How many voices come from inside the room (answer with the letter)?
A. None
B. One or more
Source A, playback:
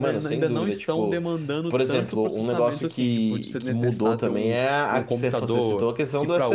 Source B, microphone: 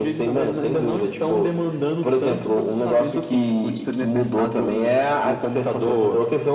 A